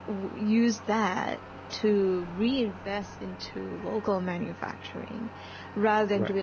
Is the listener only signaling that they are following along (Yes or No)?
Yes